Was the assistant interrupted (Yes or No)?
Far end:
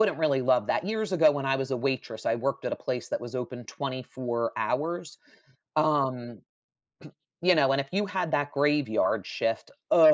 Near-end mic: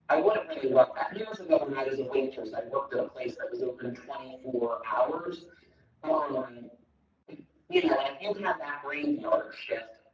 No